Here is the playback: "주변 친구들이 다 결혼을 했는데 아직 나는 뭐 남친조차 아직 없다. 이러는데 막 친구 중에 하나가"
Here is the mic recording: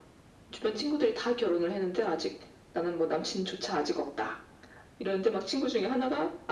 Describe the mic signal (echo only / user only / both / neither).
echo only